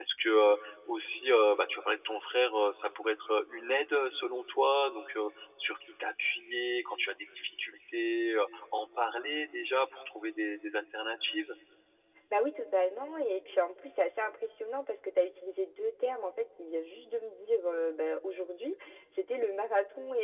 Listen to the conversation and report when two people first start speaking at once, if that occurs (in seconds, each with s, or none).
none